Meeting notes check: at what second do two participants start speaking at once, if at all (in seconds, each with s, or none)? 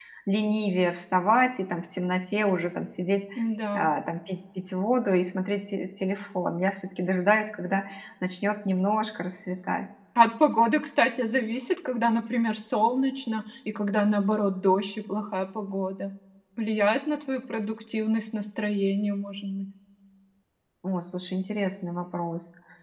none